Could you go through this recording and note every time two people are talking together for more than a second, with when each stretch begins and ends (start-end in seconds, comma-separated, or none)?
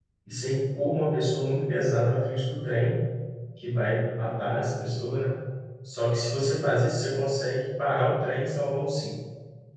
none